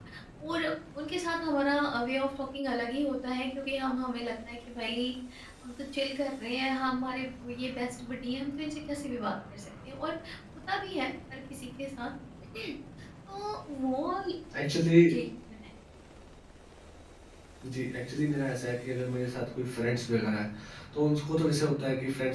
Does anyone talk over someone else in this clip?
No

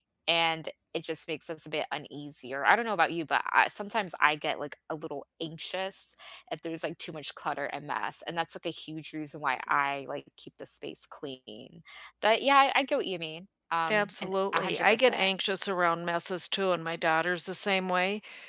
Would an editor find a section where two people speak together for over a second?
Yes, from 13.9 s

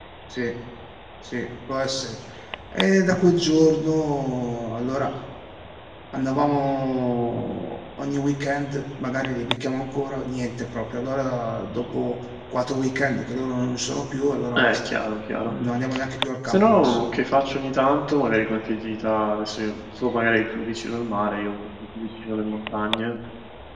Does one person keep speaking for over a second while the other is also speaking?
No

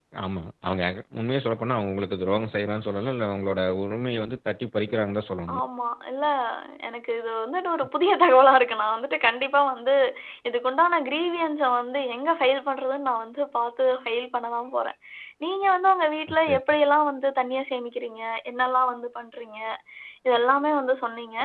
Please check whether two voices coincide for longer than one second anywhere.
No

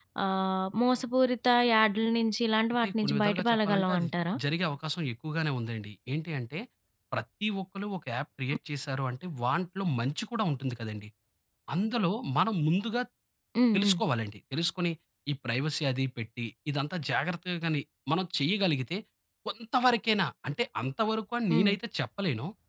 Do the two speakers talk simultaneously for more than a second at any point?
Yes, from 2.8 s

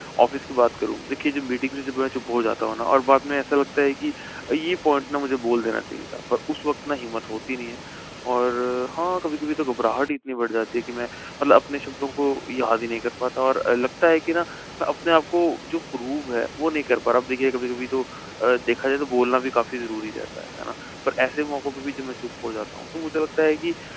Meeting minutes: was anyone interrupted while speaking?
No

